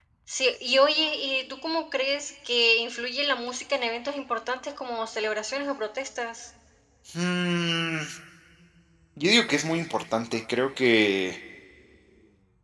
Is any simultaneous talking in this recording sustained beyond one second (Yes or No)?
No